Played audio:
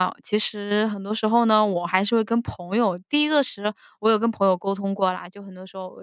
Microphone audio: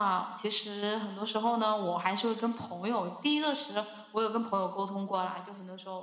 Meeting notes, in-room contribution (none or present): none